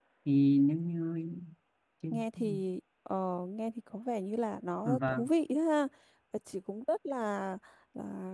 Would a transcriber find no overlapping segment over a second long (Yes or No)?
Yes